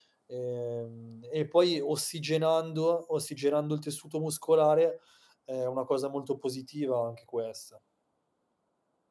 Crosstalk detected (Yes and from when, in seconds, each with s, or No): No